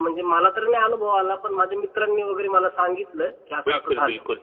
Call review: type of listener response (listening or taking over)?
taking over